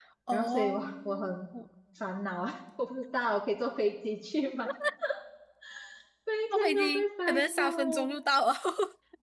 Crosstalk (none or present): present